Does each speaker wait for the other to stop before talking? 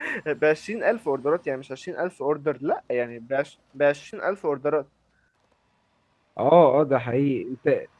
Yes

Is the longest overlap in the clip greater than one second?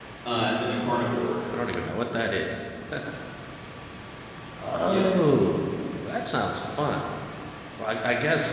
No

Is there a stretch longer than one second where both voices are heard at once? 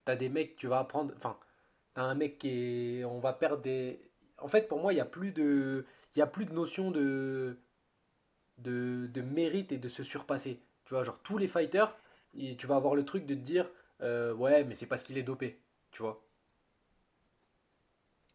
No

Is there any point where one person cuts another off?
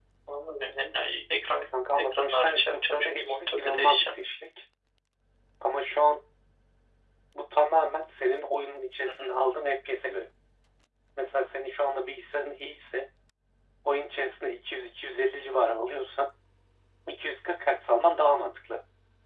Yes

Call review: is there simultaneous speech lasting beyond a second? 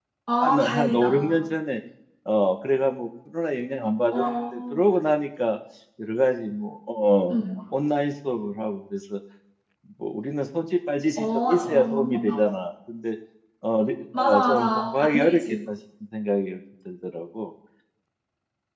Yes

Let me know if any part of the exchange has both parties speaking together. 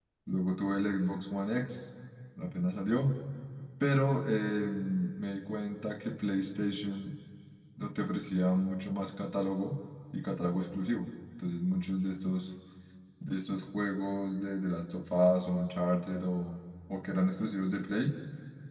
No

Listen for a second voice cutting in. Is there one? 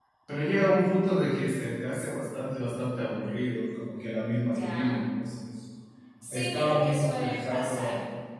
Yes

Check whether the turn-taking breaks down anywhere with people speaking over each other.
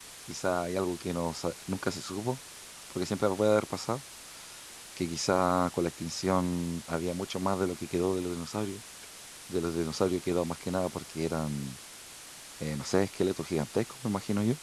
No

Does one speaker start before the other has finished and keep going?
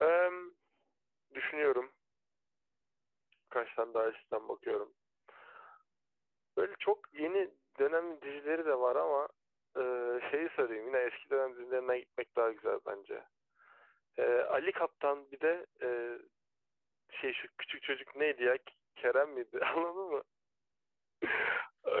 No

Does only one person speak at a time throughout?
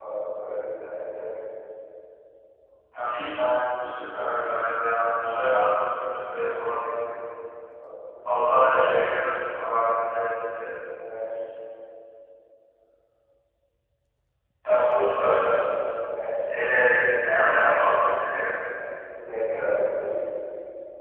Yes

